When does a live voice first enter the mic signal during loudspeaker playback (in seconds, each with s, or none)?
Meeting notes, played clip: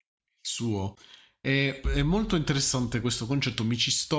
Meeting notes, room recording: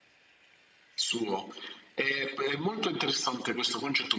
none